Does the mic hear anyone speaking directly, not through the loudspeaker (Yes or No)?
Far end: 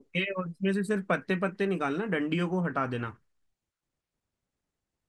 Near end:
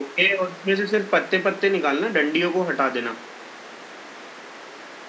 No